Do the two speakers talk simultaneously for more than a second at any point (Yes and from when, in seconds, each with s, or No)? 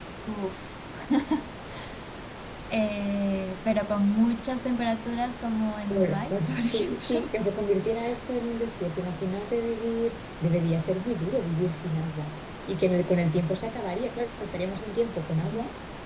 Yes, from 5.9 s